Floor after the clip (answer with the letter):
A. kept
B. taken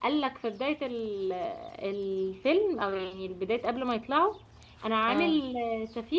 A